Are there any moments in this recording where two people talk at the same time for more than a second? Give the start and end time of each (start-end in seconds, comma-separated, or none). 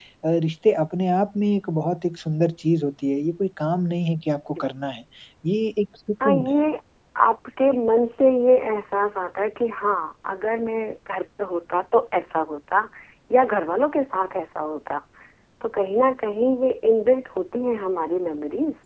none